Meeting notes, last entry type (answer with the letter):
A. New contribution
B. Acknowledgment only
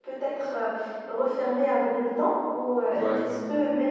B